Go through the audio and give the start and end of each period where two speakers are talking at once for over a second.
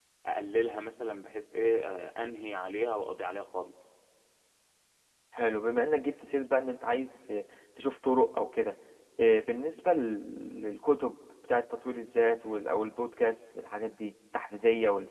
none

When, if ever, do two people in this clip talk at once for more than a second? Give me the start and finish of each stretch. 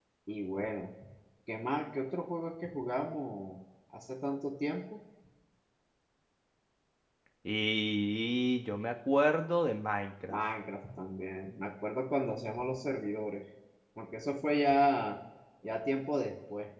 none

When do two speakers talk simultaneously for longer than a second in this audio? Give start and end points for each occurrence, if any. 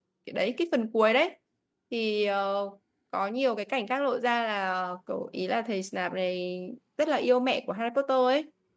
none

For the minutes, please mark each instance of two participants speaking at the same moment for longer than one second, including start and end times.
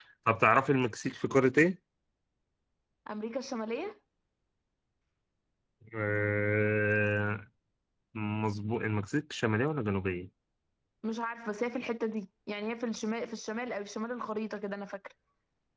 none

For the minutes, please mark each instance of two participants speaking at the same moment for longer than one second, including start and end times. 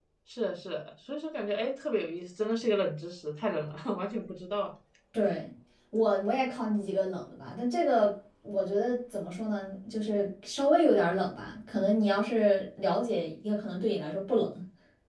none

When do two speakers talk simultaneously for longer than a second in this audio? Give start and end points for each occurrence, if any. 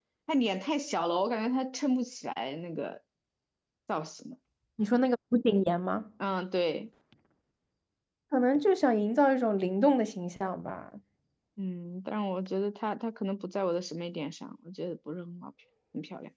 none

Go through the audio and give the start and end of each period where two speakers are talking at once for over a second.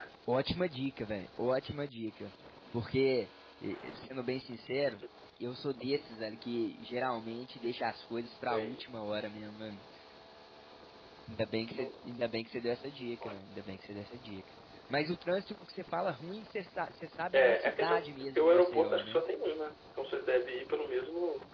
17.3-19.2

